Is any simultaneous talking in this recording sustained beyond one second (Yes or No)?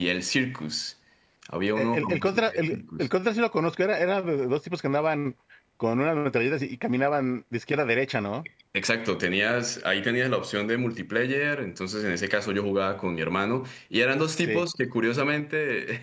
Yes